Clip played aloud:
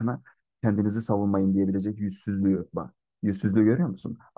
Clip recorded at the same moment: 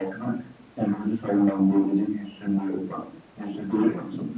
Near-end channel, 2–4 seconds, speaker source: echo only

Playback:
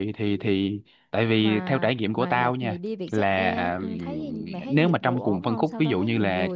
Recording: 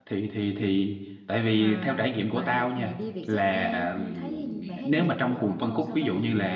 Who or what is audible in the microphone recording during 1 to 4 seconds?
echo only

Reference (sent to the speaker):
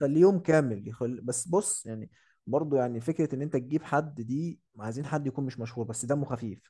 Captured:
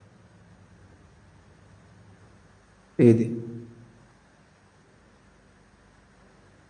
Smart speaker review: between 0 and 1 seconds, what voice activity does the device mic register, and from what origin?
neither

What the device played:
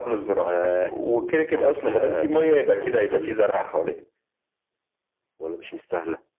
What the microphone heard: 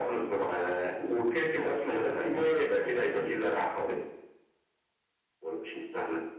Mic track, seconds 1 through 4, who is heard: echo only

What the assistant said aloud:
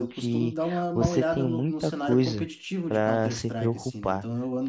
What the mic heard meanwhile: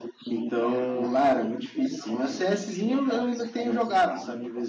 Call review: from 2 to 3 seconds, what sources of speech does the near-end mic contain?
both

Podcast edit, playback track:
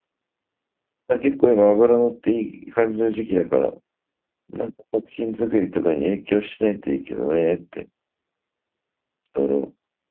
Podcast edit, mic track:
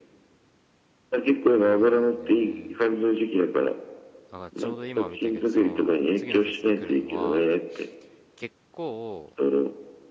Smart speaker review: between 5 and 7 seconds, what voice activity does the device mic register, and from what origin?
both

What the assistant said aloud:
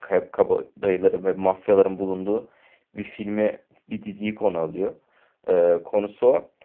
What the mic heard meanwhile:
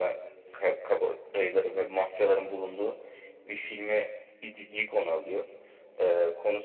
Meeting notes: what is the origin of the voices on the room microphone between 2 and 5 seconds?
echo only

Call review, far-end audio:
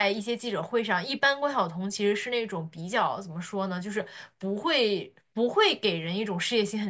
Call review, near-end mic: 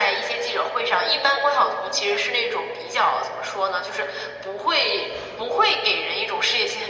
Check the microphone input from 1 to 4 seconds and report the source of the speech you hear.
both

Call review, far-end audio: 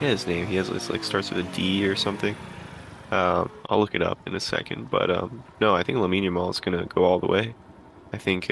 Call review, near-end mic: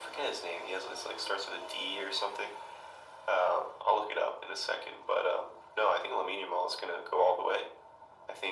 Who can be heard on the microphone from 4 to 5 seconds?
echo only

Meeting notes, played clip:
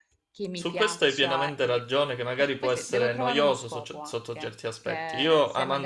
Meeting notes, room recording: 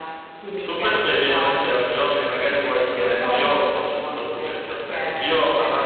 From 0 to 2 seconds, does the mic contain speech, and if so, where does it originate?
echo only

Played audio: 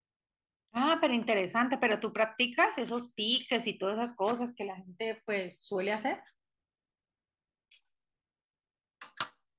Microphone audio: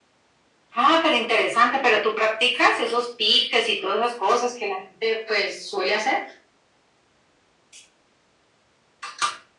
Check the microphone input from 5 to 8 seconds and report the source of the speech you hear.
echo only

